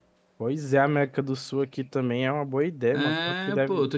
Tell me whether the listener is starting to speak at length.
Yes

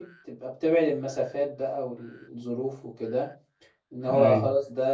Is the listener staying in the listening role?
Yes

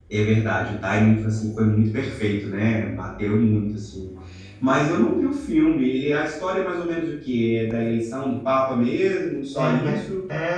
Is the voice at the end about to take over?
Yes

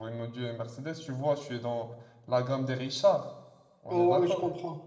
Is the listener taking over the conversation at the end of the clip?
Yes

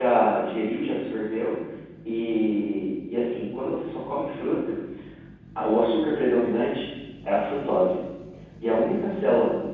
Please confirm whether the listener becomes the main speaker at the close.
No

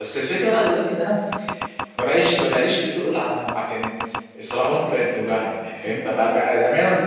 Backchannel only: Yes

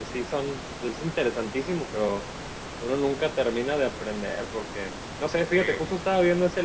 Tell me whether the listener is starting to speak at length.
No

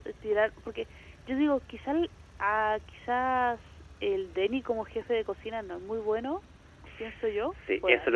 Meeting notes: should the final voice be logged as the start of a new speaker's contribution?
Yes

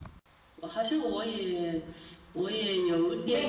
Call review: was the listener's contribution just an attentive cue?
No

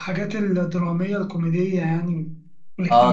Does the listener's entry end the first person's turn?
Yes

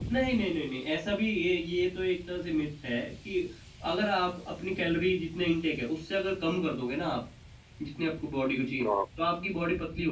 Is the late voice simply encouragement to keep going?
Yes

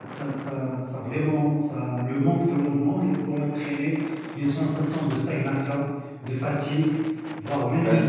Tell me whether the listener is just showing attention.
Yes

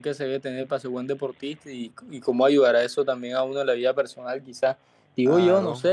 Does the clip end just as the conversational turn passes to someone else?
No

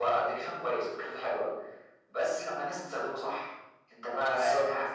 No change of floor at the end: Yes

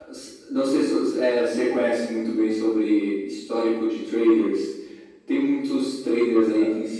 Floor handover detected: No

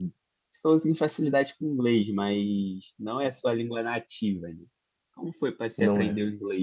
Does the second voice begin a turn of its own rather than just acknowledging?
No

